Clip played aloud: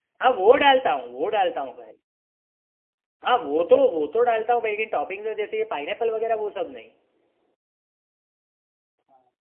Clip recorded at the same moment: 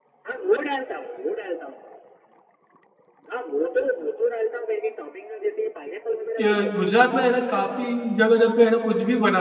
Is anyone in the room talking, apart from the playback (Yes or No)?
Yes